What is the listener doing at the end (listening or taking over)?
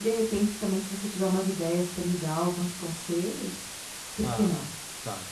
taking over